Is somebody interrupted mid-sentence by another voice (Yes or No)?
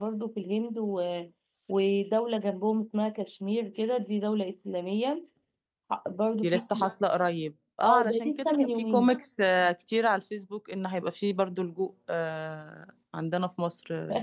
Yes